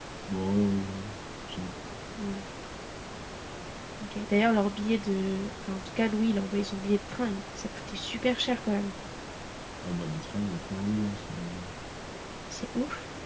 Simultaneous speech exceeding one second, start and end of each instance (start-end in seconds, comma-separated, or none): none